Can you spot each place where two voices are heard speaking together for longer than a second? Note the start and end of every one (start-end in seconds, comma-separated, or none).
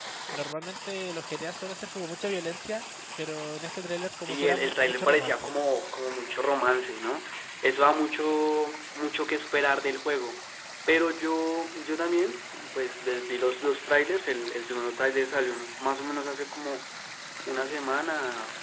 4.2-5.5